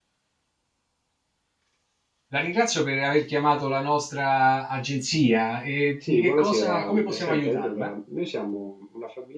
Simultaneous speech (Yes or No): Yes